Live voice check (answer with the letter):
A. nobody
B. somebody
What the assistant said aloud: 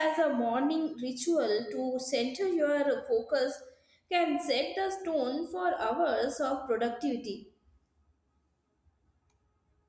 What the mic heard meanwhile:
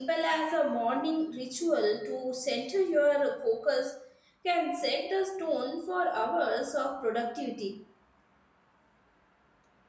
A